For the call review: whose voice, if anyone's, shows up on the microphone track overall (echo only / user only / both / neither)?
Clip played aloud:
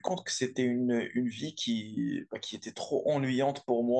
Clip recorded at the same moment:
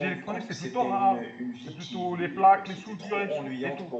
both